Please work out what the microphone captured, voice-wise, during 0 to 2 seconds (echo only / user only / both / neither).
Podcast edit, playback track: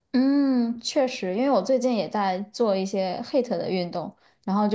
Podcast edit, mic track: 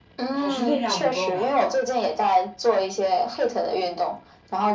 both